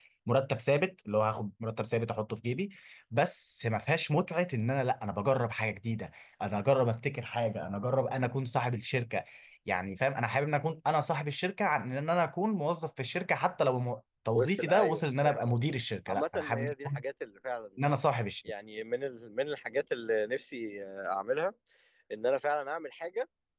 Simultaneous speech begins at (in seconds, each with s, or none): 14.3 s